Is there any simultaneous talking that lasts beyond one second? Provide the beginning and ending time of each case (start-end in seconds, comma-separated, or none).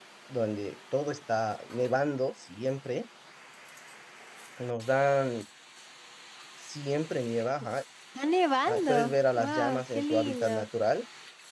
8.7-10.7